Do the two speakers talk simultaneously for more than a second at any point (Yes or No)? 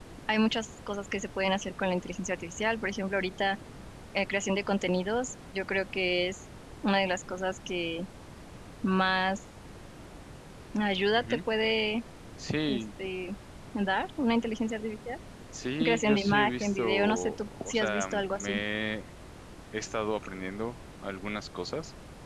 Yes